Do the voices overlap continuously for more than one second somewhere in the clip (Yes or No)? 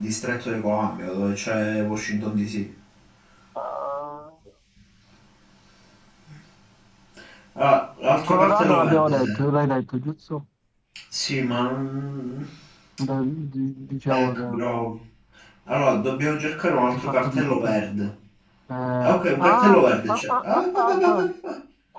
Yes